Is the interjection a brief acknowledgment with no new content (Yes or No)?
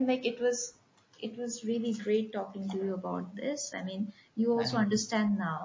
Yes